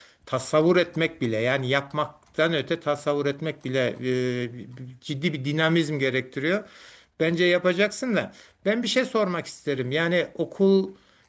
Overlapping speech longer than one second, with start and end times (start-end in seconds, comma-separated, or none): none